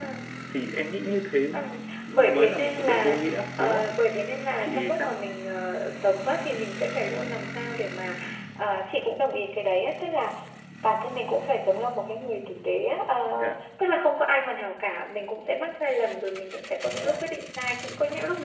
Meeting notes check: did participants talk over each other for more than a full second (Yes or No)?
Yes